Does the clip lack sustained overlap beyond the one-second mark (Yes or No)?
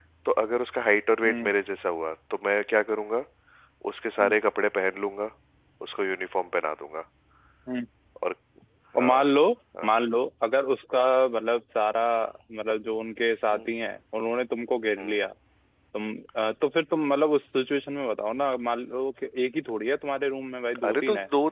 Yes